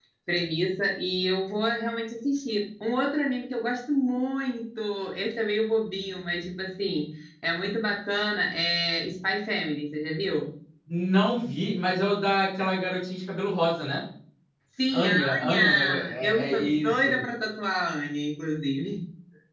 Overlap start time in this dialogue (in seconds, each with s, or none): 14.9 s